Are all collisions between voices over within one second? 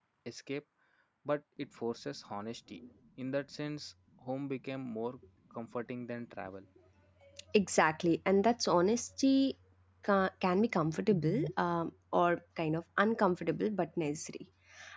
Yes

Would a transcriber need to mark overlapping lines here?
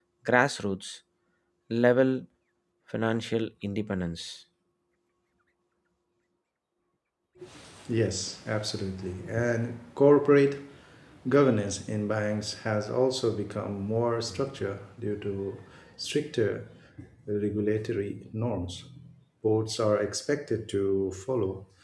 No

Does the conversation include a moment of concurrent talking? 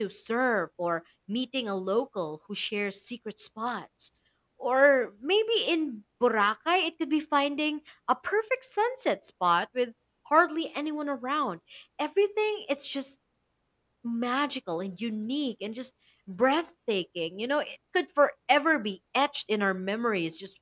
No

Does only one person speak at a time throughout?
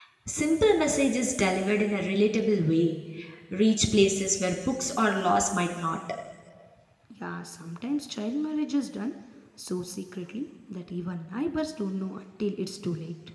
Yes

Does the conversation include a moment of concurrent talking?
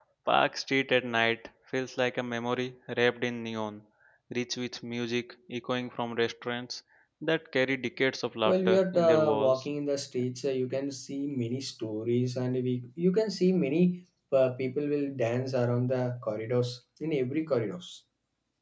Yes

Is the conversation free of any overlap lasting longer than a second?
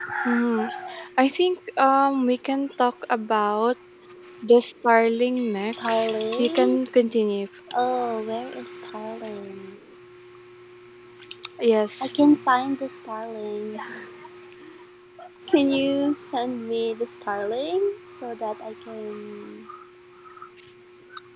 No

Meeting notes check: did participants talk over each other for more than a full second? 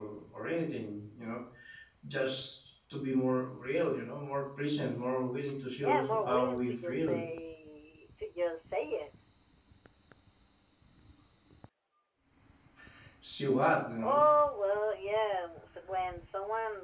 Yes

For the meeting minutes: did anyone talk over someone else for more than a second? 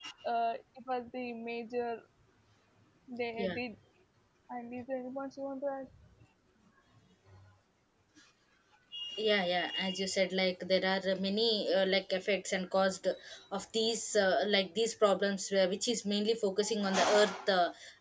No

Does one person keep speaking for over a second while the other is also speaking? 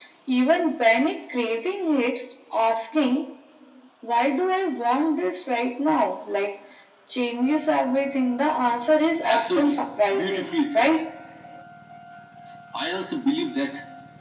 Yes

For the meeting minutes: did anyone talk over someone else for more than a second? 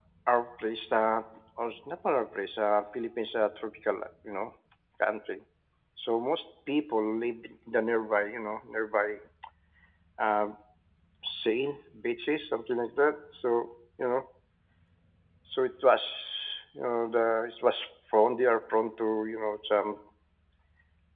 No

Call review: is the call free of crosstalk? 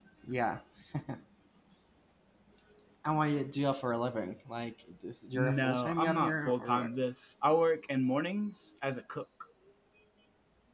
No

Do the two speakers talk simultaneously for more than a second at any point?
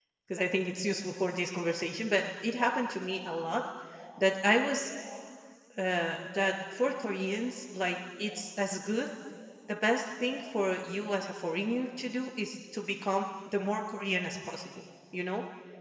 No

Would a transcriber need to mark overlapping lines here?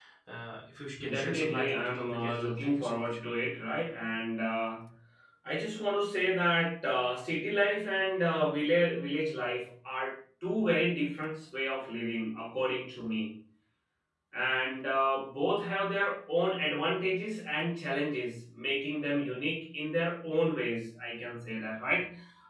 Yes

